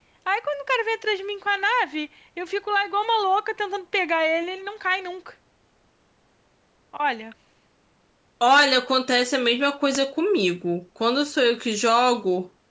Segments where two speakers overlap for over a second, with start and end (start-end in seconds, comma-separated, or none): none